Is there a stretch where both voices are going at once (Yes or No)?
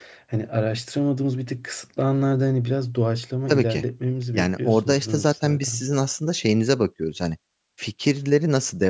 Yes